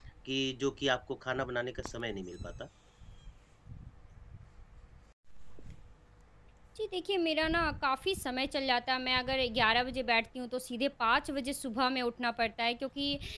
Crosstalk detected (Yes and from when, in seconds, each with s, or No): No